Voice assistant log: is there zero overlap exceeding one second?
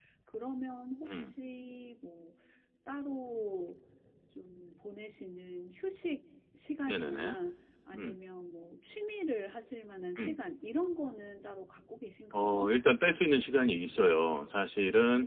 Yes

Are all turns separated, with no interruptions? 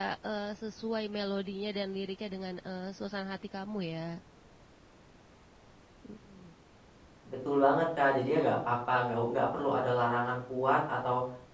Yes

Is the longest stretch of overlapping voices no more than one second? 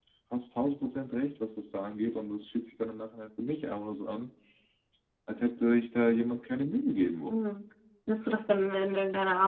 Yes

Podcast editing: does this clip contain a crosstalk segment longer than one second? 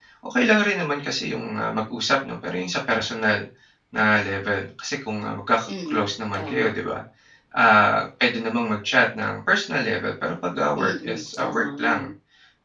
Yes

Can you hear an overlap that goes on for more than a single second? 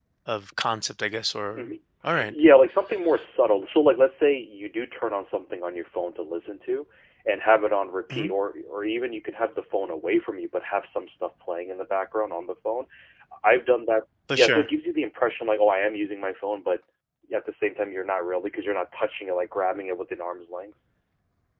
No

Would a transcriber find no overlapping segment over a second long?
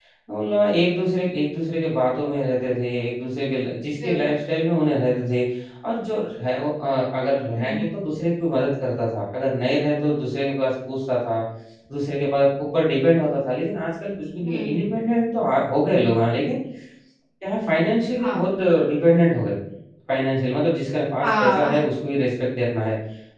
Yes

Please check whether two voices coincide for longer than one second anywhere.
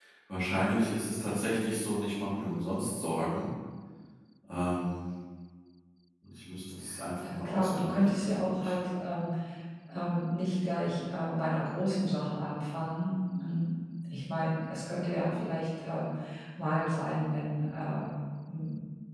Yes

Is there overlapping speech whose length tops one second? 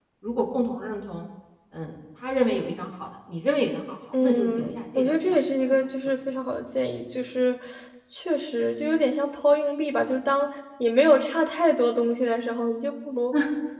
Yes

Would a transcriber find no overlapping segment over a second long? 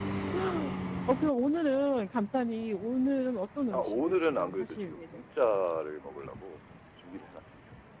No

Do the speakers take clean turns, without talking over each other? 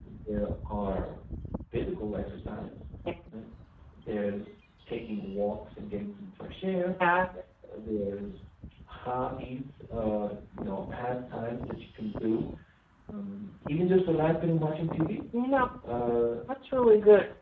Yes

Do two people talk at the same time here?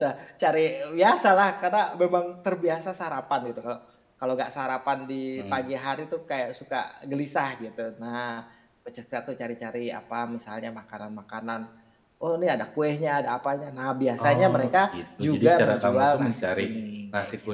Yes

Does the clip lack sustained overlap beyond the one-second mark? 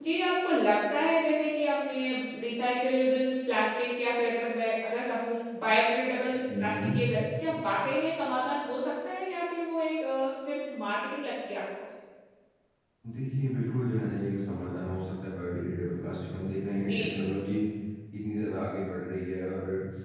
Yes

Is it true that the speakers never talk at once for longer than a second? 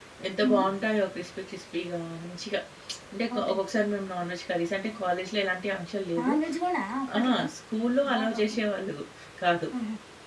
Yes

